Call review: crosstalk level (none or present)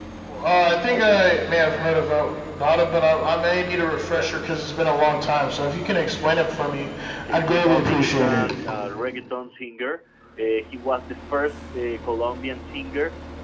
present